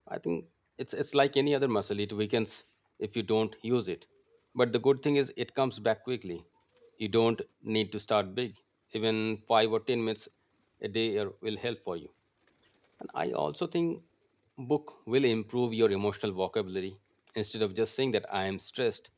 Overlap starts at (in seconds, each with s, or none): none